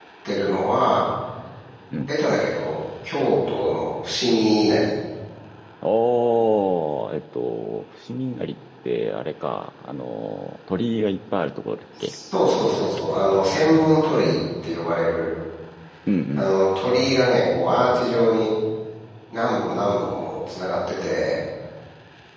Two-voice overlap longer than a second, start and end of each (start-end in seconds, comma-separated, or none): none